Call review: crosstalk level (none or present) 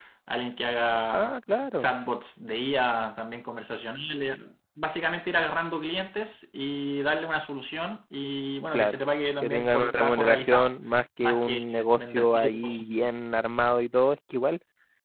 present